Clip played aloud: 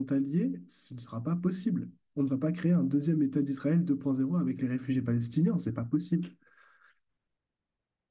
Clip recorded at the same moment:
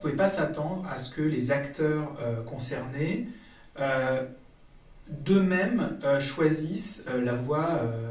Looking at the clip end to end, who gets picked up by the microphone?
user only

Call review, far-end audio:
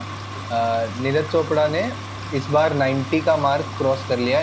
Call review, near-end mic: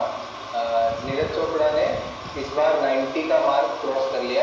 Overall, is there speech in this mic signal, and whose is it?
echo only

